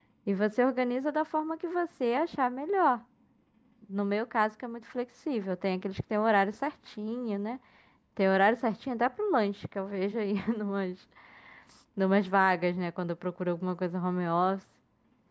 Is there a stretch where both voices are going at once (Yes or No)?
No